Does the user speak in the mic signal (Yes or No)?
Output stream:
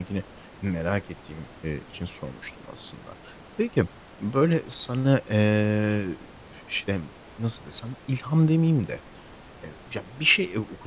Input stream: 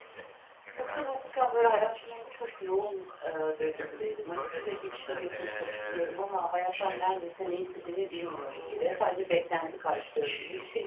Yes